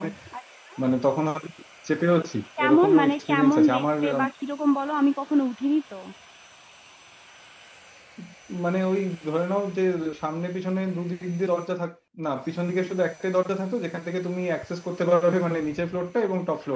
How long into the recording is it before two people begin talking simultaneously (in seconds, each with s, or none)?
2.6 s